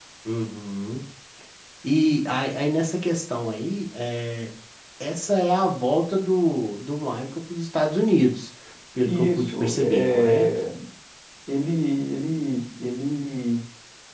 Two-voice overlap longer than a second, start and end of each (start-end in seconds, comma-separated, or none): 9.1-10.6